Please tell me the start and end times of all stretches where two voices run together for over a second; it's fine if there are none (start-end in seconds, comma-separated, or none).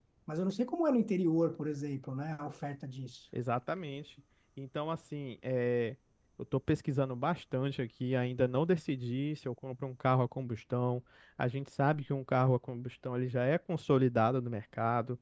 none